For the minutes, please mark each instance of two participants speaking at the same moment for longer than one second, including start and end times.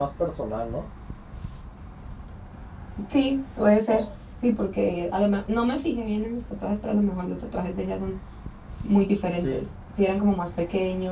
none

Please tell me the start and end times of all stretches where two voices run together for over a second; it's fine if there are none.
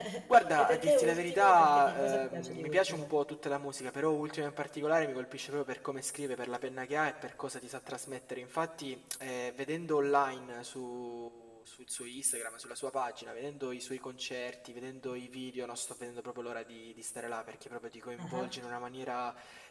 0.6-3.0

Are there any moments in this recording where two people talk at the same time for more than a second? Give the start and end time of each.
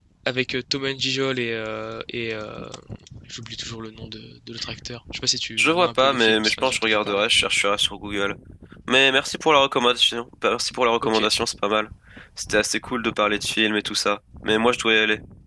5.6-7.2

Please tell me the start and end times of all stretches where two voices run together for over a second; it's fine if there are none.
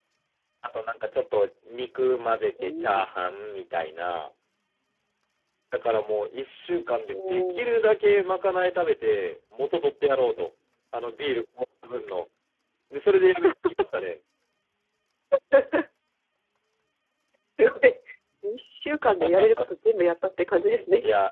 none

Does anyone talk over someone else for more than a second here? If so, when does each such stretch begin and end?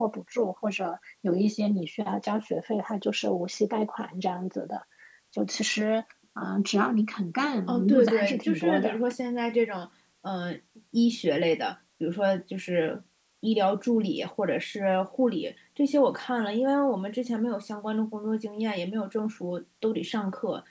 7.7-9.0

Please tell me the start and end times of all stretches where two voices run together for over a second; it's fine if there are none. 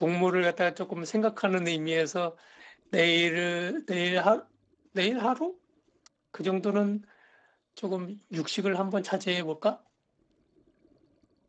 none

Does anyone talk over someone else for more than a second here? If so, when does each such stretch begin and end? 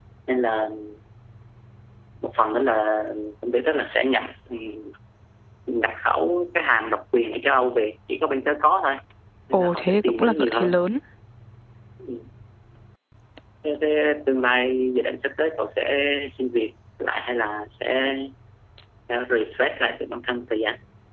9.5-10.8

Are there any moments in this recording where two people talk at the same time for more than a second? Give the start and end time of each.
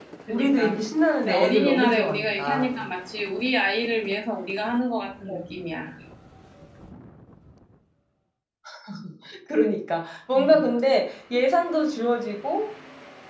1.3-2.8

